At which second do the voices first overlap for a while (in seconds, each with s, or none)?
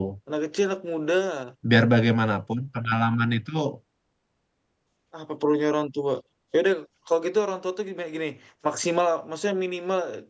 none